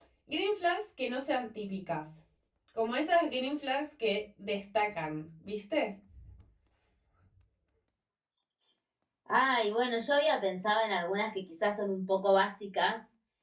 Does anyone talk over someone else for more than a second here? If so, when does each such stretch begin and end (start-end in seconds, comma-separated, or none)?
none